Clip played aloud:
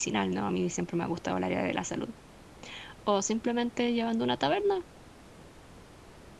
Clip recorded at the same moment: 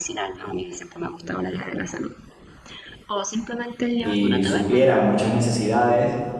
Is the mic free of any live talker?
No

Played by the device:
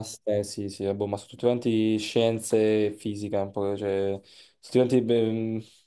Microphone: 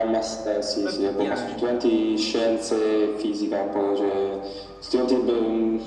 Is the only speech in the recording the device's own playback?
No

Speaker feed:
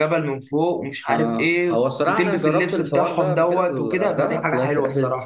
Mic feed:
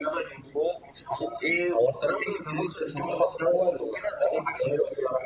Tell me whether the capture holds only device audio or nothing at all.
Yes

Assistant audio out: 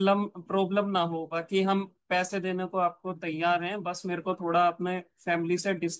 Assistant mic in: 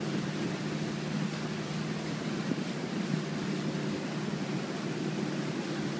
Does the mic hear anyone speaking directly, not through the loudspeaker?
No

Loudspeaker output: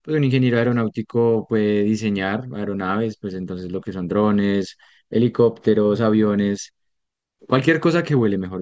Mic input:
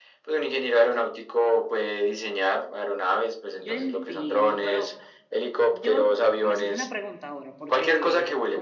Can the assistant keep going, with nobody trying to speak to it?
No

